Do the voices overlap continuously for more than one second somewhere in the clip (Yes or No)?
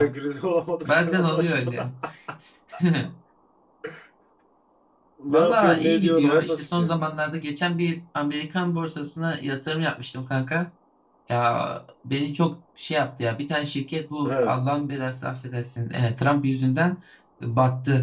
Yes